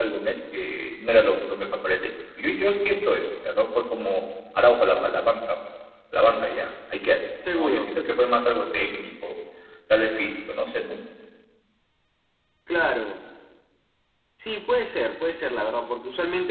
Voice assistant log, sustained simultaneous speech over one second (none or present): none